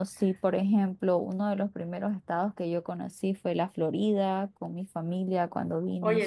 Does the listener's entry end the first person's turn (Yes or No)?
Yes